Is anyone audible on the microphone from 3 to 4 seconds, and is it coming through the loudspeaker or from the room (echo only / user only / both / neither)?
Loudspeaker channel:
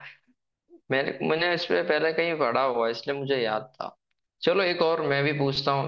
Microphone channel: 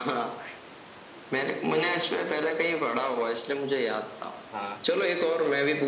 echo only